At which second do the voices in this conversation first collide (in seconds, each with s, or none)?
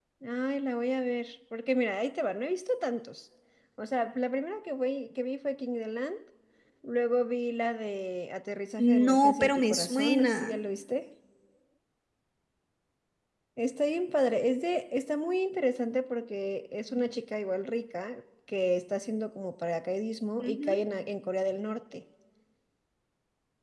8.8 s